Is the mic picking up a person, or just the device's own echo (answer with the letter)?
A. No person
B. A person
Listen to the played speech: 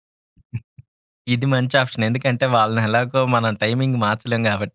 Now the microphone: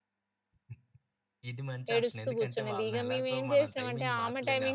B